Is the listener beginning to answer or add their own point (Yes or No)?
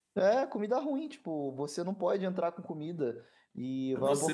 Yes